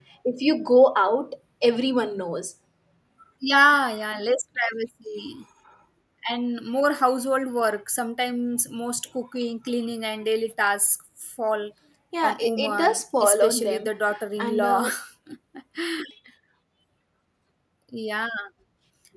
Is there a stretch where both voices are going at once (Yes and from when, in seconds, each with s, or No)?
Yes, from 12.2 s